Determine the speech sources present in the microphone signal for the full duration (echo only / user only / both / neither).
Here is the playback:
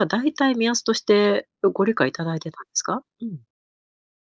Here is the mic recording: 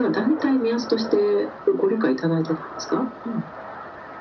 echo only